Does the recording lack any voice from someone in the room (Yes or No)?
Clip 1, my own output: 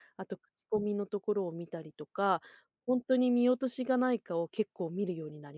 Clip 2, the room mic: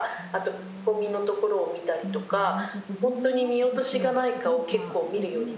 No